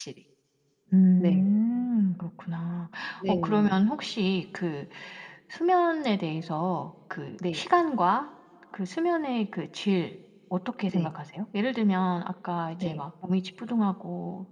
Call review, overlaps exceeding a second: none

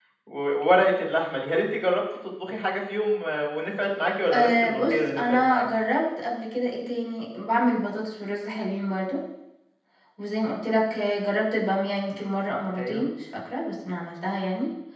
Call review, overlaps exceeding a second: present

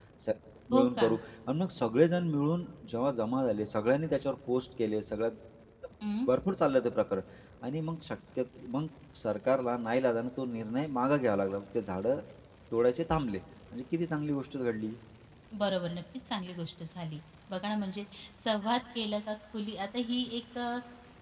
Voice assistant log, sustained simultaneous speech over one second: none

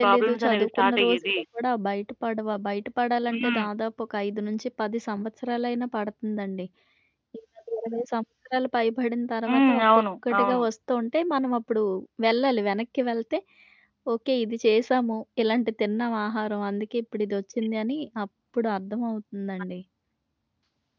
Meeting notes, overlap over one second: present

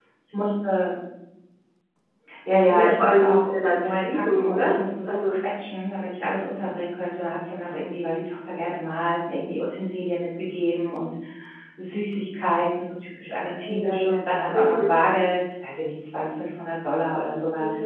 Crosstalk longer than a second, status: present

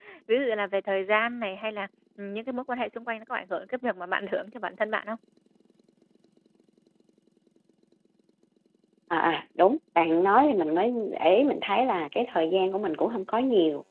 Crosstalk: none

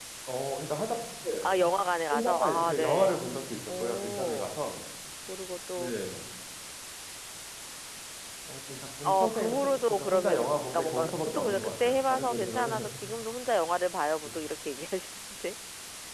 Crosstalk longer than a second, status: present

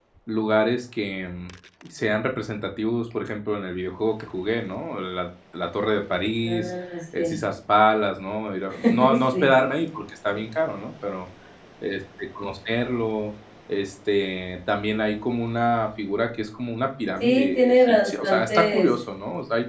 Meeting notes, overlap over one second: present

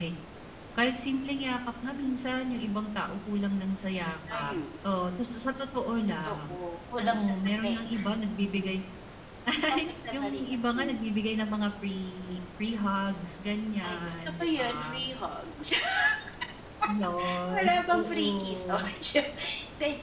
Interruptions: present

